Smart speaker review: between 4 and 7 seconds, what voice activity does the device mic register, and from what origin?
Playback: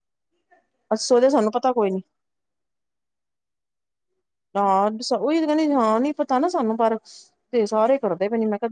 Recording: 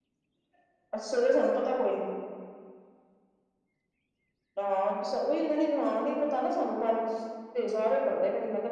echo only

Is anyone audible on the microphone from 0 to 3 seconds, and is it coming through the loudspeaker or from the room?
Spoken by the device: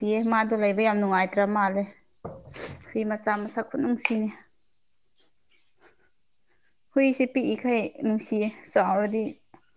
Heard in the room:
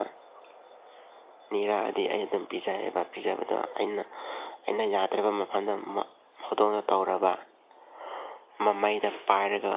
user only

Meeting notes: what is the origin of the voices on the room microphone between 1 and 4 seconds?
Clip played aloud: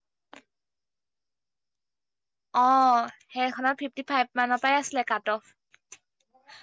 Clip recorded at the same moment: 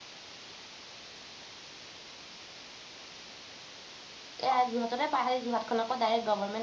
neither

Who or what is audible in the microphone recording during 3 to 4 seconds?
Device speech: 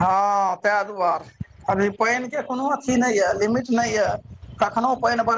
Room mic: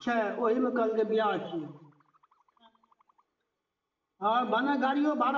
neither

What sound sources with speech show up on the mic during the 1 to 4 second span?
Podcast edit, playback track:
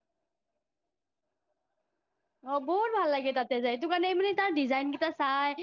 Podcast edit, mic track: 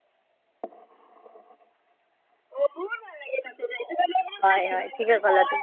echo only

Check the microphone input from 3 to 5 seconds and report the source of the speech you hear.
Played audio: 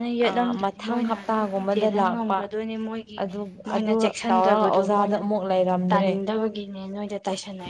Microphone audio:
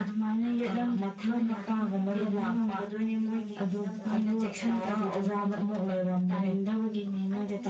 both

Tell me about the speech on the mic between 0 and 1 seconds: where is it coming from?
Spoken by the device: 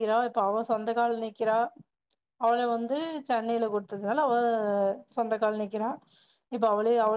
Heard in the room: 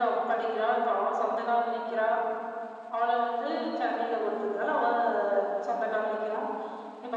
echo only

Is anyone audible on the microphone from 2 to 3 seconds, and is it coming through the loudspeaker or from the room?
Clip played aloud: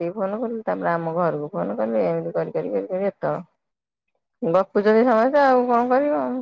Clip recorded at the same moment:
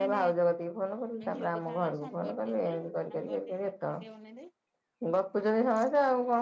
both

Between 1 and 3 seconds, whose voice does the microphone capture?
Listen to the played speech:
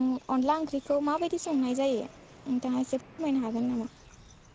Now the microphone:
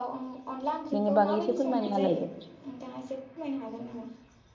both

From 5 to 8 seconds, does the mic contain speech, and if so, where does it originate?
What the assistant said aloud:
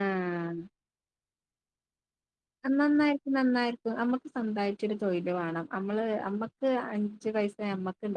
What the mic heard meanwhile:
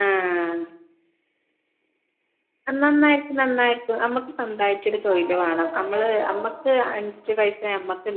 both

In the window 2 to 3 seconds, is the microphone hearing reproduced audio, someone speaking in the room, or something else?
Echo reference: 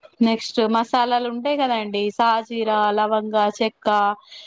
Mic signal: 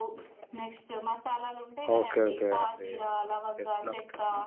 both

